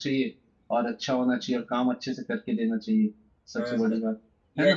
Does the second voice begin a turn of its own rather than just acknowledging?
Yes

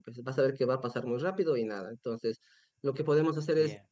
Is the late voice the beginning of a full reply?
No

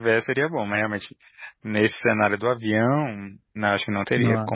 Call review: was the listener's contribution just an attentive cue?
Yes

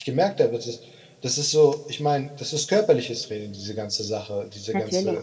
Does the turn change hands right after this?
No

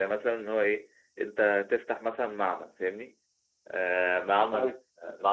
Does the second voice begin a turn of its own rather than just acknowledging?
No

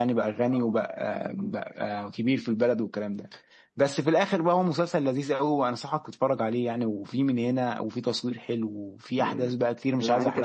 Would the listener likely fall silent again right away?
No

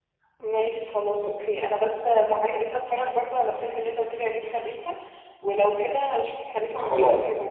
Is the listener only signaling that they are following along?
No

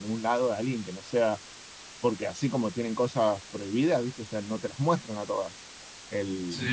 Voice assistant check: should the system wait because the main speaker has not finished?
Yes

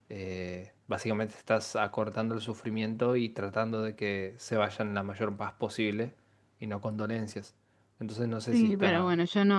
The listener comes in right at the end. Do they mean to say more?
Yes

